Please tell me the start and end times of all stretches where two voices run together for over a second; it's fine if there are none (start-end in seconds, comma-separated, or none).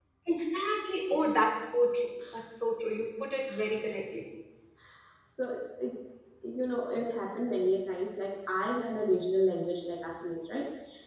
none